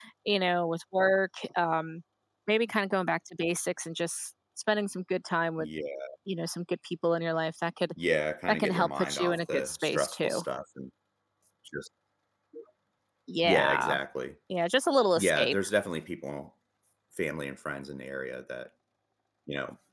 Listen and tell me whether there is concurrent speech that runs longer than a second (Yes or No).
Yes